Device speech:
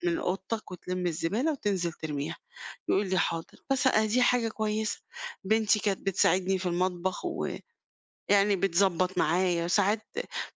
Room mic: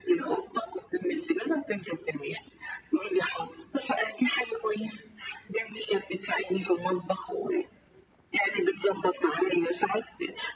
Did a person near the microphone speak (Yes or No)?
No